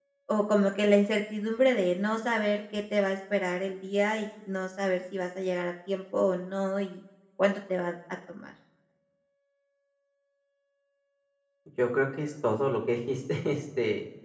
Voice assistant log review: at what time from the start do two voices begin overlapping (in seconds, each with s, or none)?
none